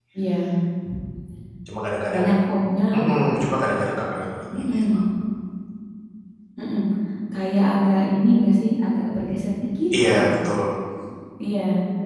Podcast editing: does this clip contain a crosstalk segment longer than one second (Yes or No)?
No